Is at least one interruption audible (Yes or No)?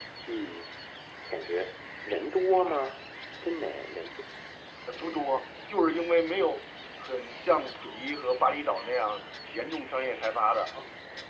No